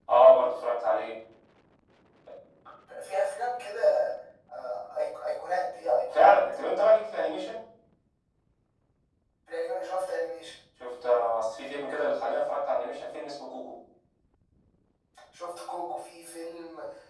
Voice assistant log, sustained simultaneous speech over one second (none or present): none